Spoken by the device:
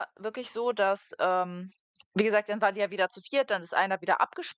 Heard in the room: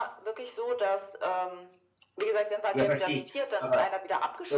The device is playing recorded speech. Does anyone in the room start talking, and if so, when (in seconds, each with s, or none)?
2.7 s